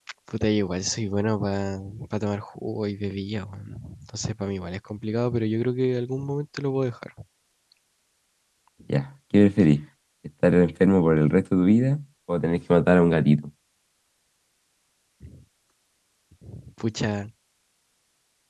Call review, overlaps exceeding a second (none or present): none